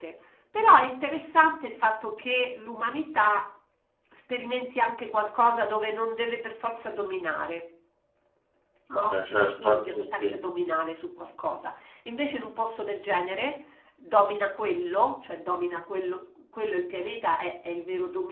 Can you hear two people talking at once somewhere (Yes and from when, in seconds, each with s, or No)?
Yes, from 8.9 s